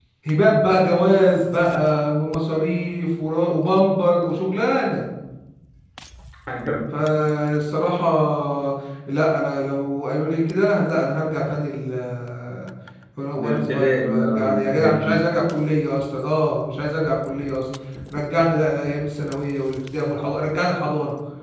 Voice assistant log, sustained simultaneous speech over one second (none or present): present